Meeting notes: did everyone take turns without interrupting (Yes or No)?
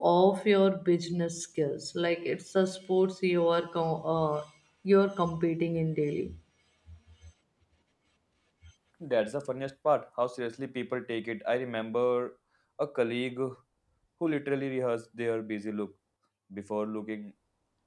Yes